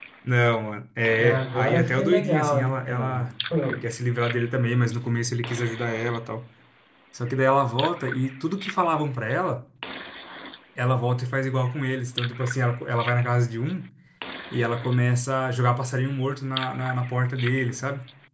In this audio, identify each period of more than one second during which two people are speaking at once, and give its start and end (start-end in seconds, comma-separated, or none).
1.2-3.2